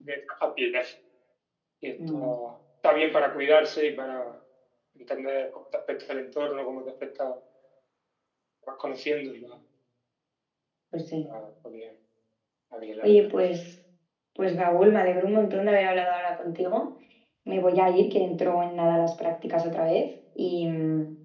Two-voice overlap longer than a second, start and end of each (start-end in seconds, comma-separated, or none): none